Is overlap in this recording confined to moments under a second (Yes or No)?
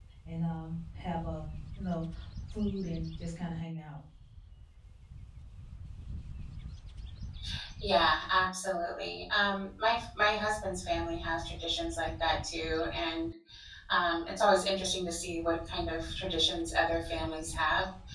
Yes